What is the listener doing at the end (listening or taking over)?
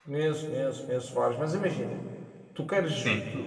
listening